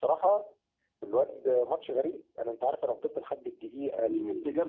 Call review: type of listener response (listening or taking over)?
taking over